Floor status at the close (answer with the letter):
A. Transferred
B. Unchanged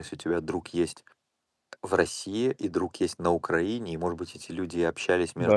B